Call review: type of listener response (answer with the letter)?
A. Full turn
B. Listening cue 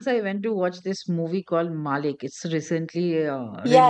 A